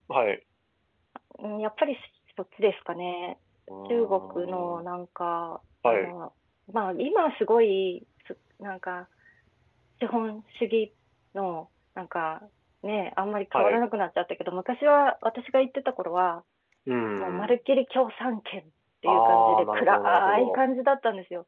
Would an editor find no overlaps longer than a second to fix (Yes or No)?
No